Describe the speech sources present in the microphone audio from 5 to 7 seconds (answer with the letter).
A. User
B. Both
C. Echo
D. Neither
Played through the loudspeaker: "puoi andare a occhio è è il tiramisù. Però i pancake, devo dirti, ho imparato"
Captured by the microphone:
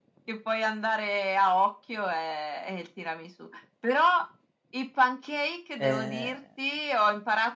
B